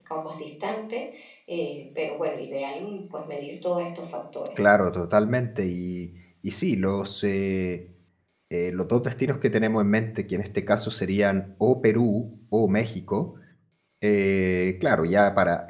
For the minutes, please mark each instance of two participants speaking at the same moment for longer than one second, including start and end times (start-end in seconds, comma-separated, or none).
none